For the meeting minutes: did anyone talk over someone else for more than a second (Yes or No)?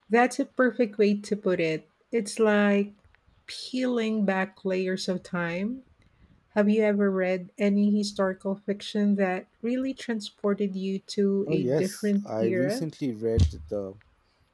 Yes